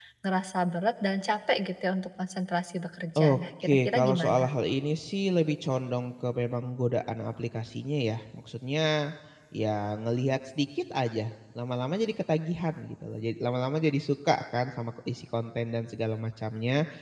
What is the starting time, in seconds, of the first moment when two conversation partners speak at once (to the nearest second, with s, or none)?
3 s